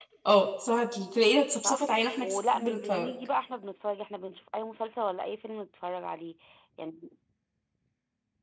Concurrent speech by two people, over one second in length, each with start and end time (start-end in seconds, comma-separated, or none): 1.6-3.1